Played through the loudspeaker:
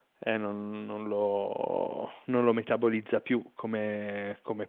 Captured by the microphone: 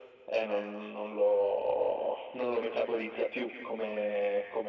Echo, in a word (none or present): present